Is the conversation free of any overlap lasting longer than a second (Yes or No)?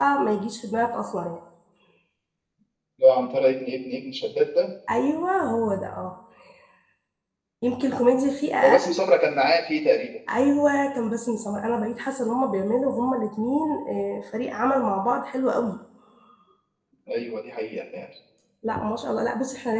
Yes